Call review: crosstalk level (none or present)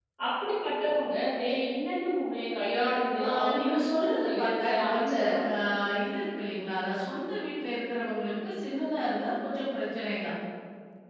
present